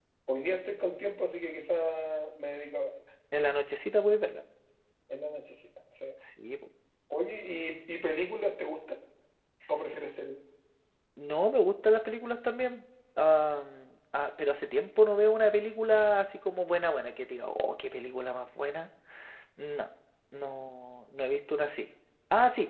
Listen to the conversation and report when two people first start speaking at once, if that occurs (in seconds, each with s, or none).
none